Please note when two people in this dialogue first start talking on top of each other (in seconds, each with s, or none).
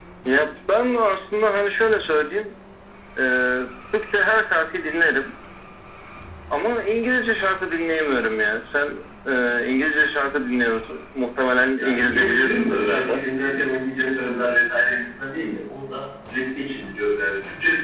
11.7 s